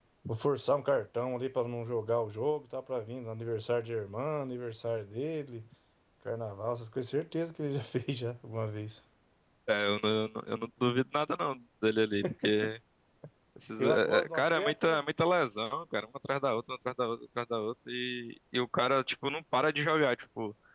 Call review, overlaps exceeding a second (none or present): present